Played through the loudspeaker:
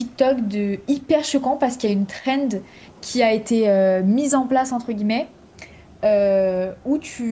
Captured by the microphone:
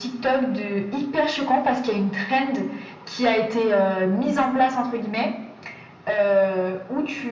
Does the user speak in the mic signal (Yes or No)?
No